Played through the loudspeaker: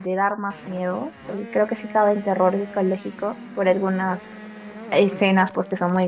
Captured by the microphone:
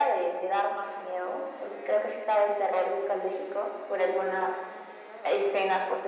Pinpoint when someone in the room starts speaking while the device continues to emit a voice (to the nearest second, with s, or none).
none